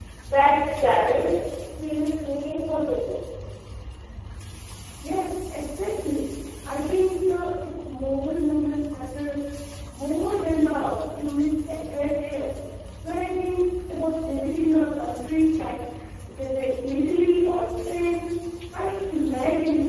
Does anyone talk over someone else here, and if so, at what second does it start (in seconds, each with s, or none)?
none